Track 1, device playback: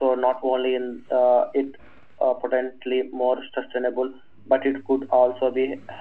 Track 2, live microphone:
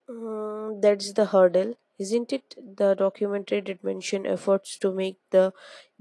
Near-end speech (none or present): present